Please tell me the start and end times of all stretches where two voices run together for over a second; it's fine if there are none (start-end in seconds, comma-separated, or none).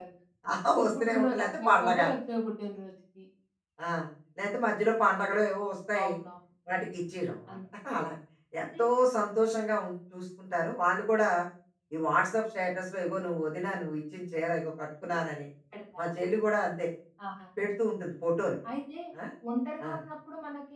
0.8-2.0